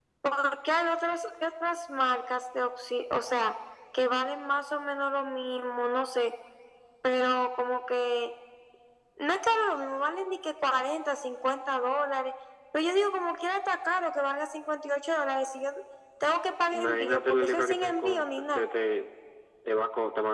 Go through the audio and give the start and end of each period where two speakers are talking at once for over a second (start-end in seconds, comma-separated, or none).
16.7-18.6